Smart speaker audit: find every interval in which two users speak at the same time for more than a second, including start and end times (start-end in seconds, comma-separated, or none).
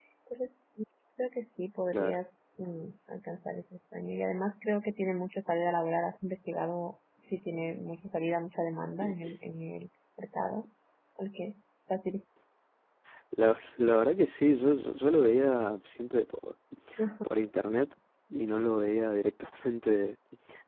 none